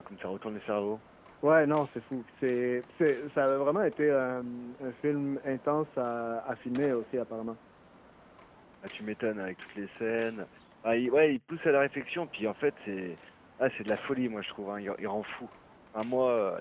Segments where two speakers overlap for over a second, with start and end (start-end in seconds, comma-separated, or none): none